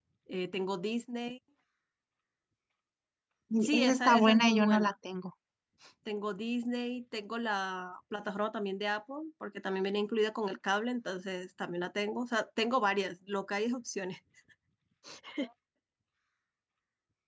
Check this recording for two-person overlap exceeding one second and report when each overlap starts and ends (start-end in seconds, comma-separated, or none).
3.6-4.9